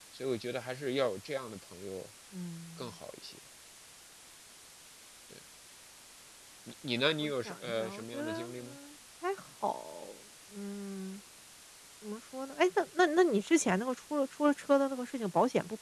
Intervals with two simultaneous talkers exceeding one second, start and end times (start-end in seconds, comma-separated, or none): 7.2-8.8